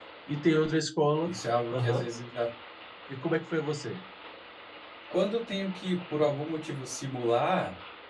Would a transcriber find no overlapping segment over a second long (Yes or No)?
Yes